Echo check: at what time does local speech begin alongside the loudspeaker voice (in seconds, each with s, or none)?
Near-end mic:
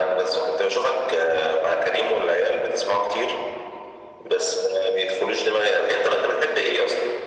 none